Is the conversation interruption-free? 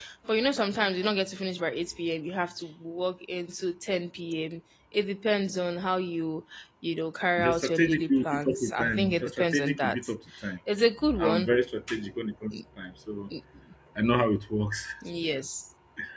No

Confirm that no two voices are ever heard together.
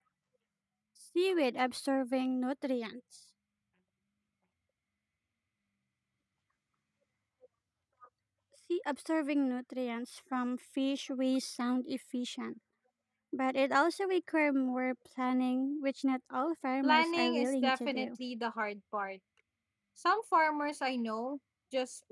No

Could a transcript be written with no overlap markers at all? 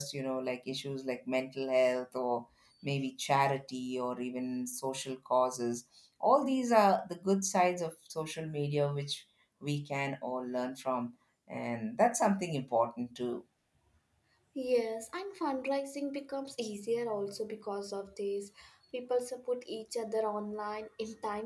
Yes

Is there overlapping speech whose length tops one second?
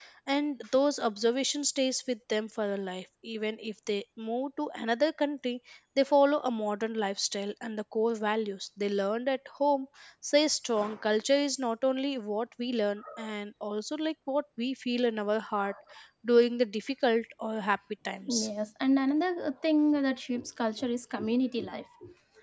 No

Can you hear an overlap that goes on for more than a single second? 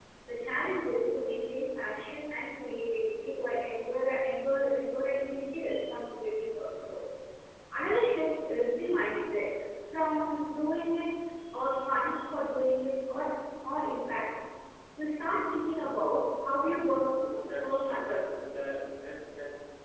Yes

